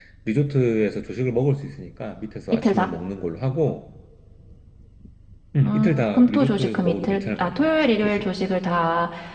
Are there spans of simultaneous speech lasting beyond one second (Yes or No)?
Yes